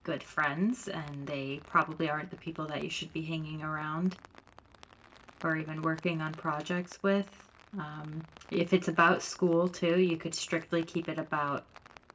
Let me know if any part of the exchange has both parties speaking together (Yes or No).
No